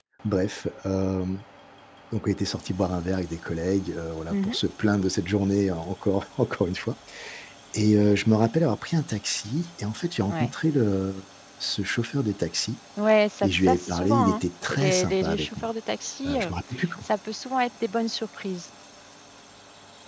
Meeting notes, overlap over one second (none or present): present